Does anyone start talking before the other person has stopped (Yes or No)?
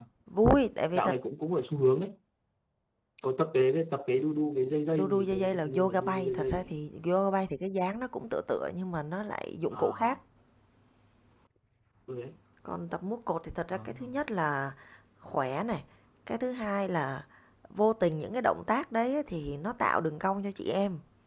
Yes